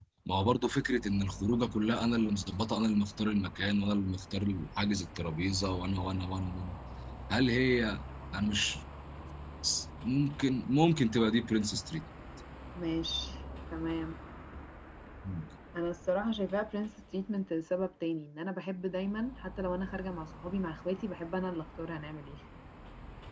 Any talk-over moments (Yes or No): No